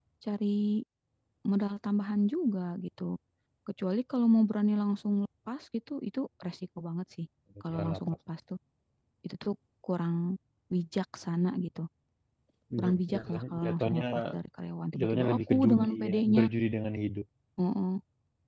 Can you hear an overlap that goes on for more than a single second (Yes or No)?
Yes